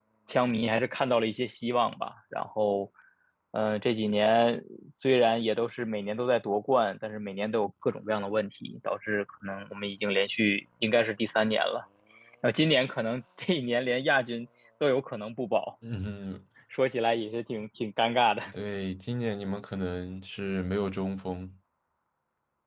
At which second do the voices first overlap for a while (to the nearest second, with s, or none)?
none